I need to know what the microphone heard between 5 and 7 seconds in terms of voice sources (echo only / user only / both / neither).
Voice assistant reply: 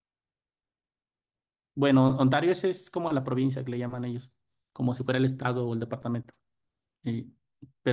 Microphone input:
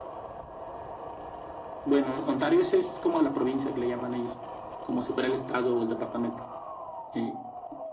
echo only